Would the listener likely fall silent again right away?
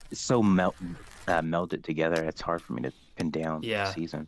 No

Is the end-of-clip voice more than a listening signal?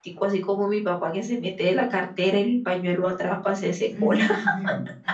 Yes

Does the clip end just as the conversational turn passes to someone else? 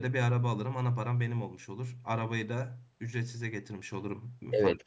Yes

